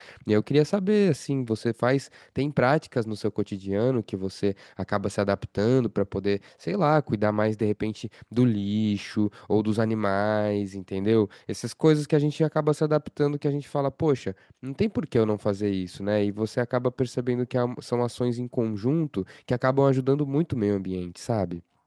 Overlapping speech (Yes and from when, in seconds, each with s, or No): No